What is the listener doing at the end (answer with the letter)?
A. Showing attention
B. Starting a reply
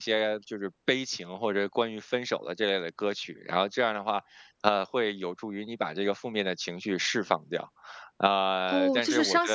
B